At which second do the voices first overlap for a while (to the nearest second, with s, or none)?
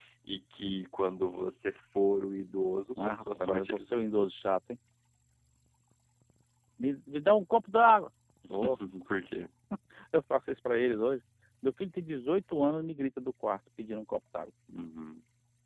3 s